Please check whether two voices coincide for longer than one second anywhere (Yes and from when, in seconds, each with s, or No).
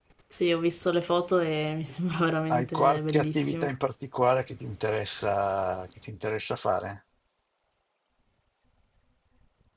Yes, from 2.5 s